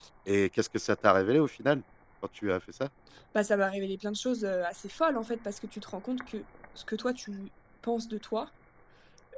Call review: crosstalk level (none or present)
none